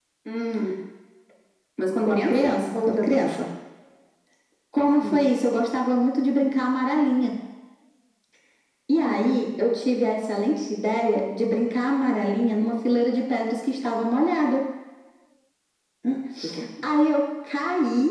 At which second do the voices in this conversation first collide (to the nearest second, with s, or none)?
2 s